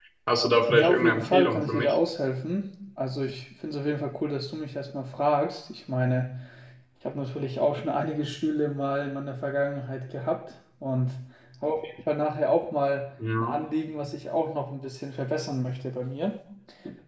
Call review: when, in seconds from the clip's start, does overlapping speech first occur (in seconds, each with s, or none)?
0.7 s